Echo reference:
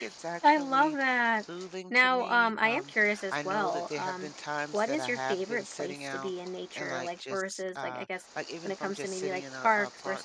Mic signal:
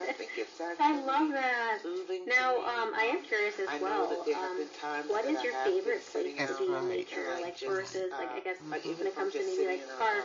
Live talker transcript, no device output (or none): That's right. That's right. hmm